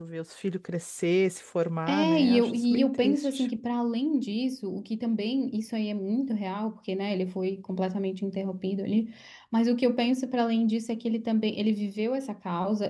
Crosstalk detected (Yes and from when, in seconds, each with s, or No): Yes, from 1.9 s